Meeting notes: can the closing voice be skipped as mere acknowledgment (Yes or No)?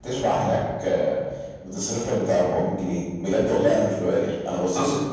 No